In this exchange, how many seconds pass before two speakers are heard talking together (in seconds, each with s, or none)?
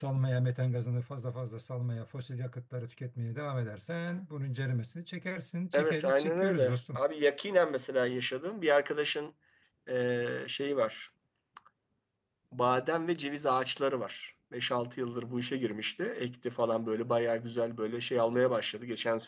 5.7 s